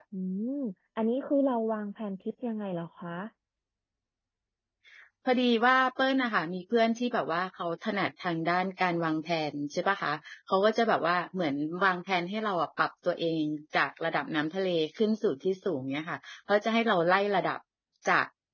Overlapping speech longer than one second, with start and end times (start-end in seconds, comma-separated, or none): none